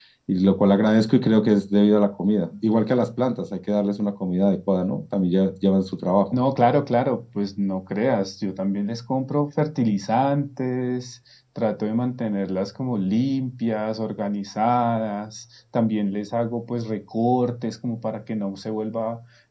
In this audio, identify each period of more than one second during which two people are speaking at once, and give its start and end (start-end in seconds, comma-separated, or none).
none